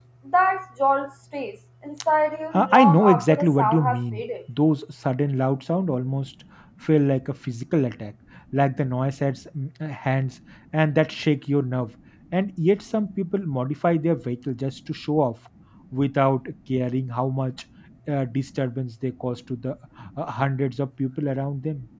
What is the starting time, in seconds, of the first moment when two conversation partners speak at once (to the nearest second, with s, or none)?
3 s